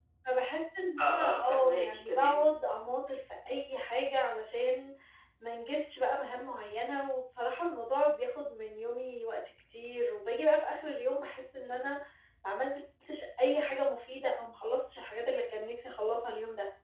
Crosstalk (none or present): present